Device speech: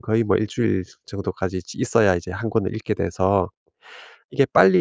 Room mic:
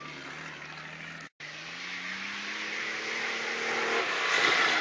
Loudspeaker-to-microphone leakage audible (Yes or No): No